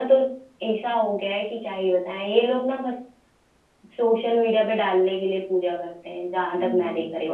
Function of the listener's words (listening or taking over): taking over